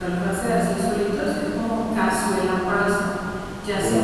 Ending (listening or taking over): listening